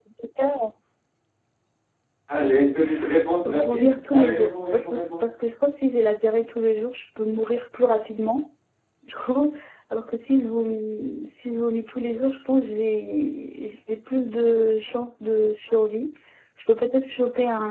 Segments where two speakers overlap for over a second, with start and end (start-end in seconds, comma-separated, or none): 3.5-5.2